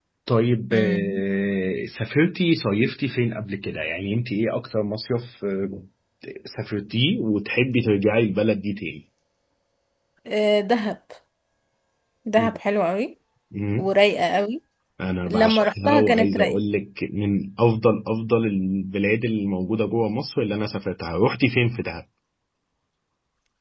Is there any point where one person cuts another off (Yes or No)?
Yes